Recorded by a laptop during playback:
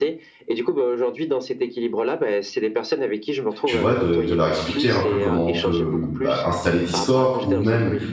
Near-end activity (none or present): present